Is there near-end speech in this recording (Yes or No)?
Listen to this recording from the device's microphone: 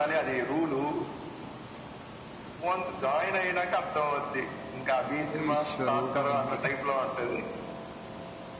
Yes